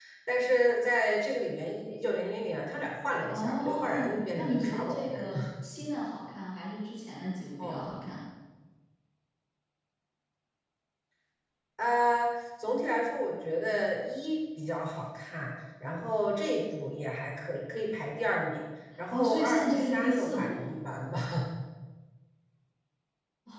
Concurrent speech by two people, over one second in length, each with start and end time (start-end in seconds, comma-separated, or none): 3.3-5.4, 19.1-20.7